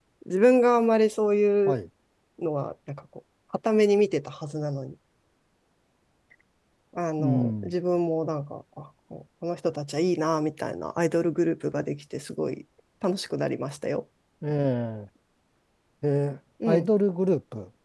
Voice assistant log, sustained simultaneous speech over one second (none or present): none